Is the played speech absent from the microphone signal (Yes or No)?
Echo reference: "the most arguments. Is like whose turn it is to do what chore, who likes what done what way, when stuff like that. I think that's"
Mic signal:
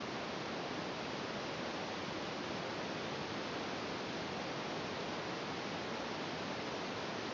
Yes